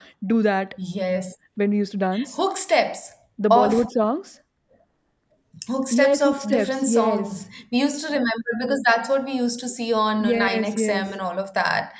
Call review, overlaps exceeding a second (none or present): present